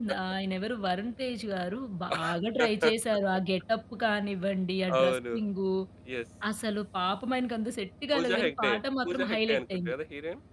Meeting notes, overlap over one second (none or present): present